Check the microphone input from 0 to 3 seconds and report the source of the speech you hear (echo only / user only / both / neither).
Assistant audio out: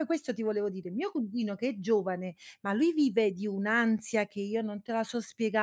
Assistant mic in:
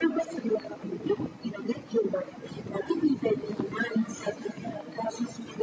echo only